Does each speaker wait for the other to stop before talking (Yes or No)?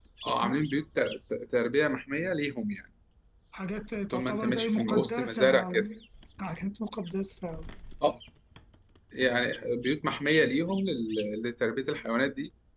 No